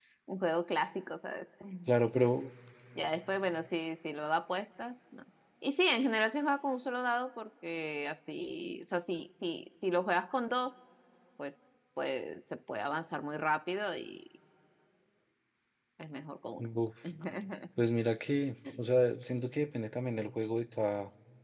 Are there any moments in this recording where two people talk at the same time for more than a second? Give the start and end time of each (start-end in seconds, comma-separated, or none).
none